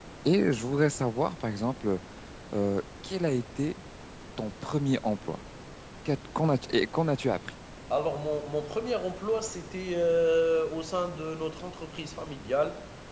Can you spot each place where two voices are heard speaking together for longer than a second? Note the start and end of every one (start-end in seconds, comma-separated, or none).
none